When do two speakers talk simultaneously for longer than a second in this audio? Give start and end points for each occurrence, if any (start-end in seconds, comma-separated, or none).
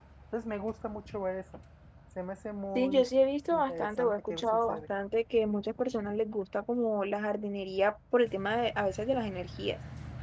3.5-4.8